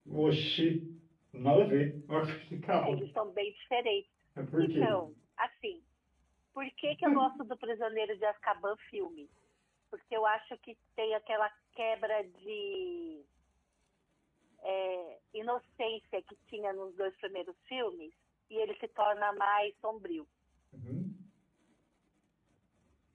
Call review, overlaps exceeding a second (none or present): none